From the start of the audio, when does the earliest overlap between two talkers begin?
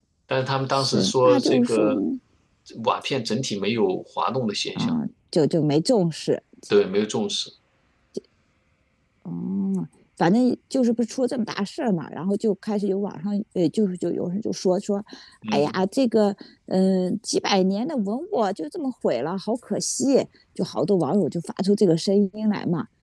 0.7 s

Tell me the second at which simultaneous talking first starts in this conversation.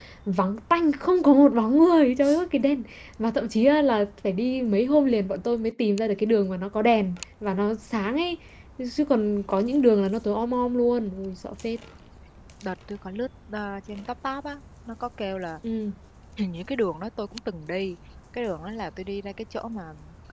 none

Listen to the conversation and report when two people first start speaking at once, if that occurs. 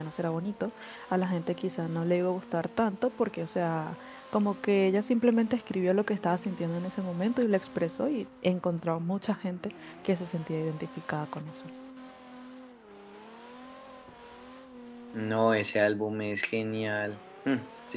none

